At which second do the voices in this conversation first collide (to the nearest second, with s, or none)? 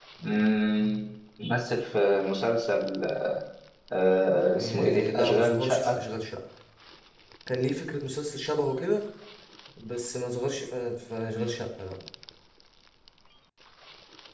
5 s